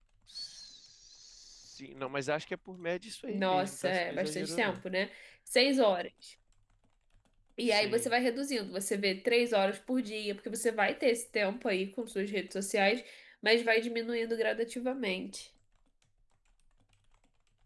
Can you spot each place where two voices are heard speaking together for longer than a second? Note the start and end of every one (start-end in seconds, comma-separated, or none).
3.3-4.8